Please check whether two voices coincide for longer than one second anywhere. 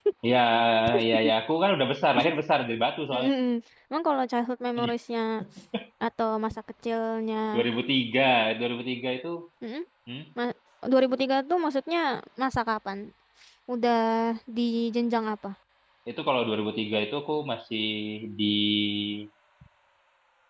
No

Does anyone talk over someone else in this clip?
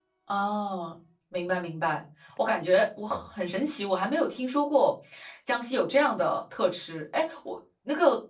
No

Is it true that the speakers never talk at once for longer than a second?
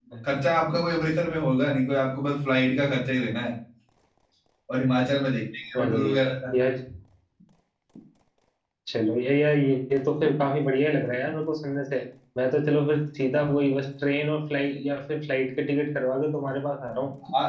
Yes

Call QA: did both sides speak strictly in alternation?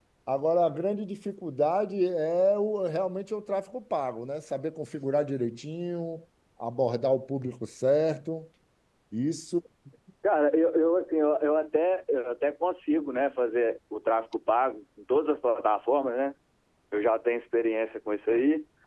Yes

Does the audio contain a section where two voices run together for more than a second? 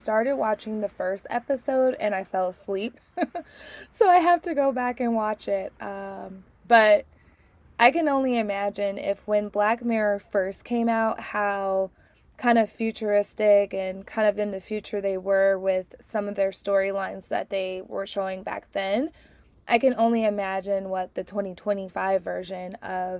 No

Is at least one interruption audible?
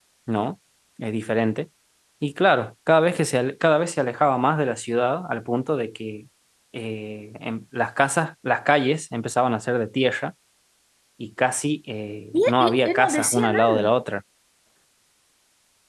Yes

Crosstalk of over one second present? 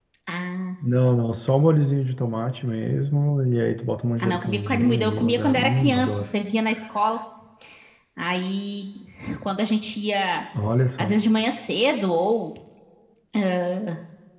Yes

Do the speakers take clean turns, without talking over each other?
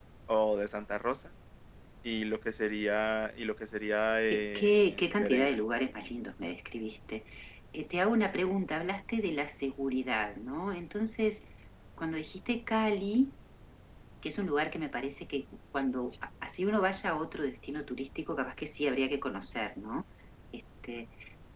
No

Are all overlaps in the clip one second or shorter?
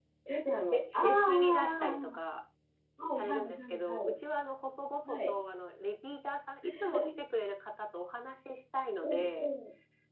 No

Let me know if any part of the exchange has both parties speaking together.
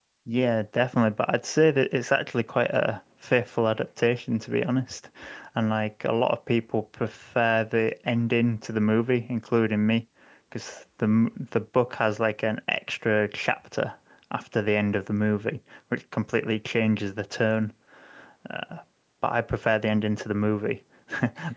No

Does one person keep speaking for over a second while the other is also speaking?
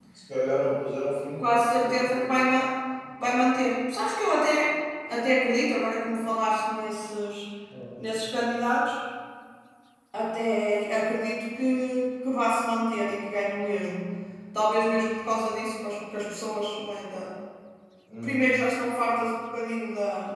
No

